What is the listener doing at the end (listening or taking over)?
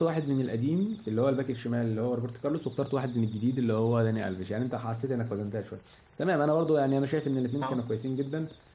listening